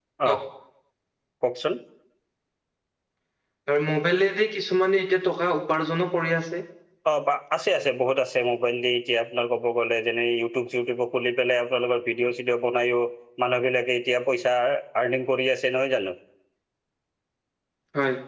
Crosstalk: none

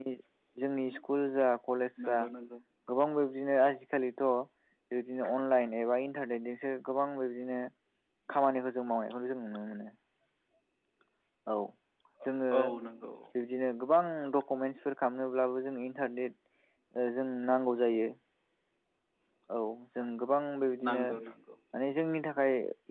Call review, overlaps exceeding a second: none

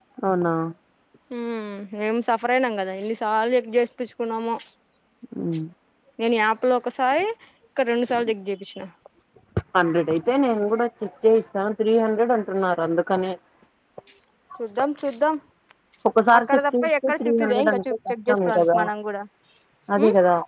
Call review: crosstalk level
present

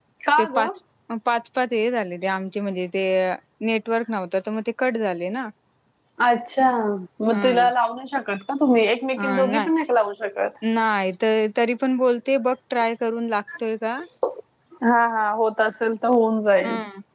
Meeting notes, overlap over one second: none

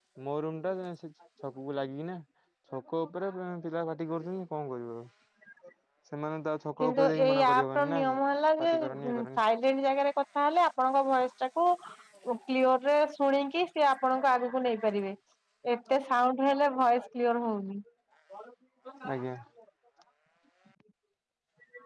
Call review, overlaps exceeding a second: present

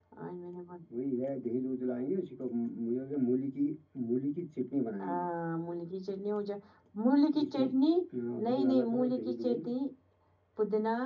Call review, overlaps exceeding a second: present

